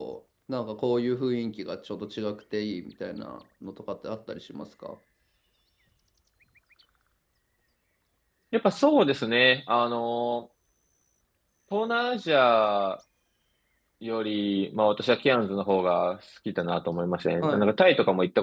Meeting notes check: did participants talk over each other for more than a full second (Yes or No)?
No